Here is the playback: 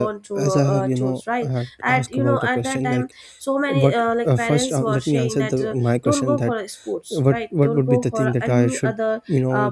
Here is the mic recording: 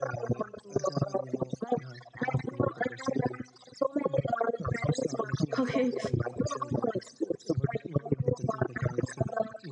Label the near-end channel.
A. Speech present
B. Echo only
A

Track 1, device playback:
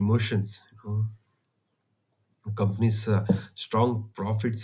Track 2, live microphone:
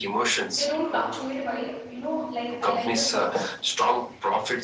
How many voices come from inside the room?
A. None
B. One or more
B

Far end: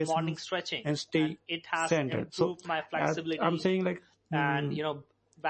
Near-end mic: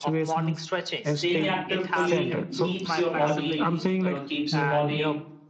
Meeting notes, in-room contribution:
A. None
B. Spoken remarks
B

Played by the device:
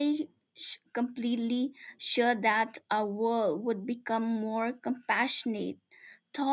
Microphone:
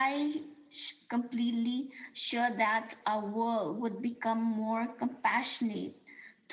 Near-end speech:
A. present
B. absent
B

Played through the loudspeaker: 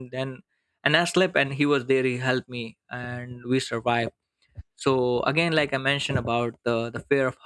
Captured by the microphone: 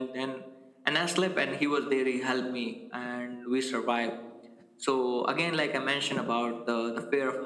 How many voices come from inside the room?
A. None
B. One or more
A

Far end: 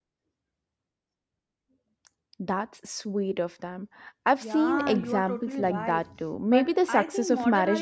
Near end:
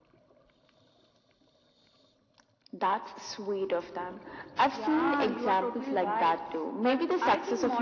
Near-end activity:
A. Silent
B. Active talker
A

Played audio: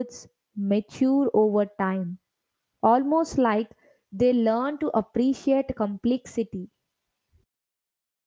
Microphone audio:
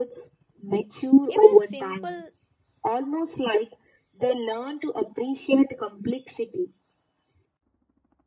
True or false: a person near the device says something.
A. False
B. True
B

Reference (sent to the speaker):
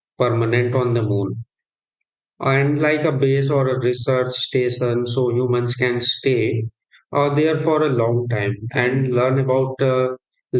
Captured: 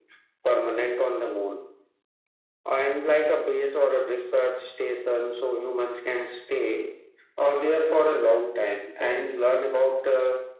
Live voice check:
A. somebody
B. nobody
B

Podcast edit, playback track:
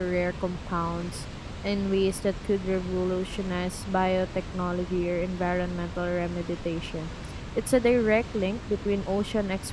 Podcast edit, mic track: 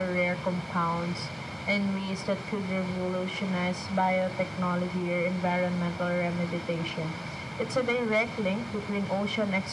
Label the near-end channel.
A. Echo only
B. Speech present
A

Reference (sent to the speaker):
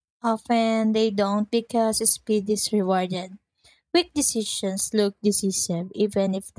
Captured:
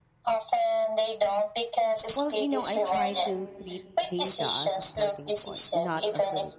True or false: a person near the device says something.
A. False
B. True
B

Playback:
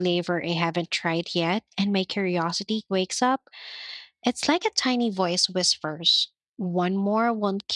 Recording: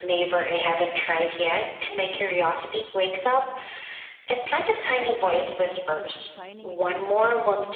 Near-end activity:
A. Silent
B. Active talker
B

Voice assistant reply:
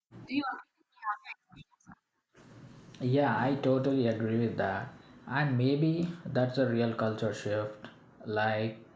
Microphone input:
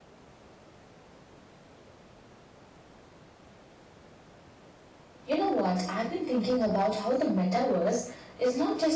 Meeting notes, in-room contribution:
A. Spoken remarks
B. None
A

